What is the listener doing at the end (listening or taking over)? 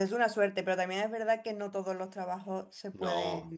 listening